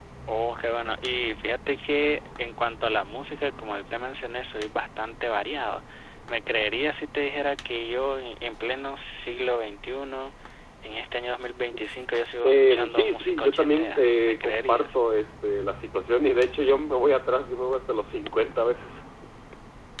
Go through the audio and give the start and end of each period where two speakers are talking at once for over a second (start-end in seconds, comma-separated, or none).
12.4-14.9